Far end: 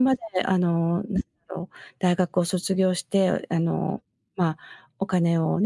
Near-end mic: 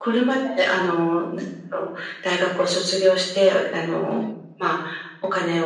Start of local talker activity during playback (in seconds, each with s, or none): 4.1 s